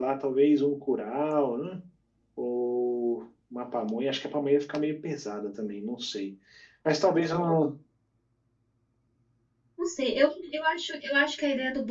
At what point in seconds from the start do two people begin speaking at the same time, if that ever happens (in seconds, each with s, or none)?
none